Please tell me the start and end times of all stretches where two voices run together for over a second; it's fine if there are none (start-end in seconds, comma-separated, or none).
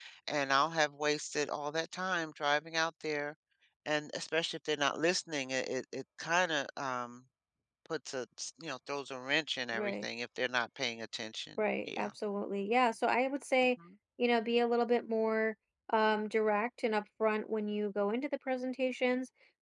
none